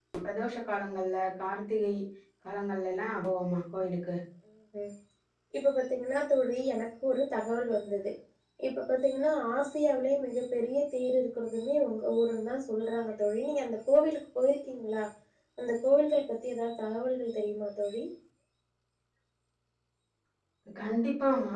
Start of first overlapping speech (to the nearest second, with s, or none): none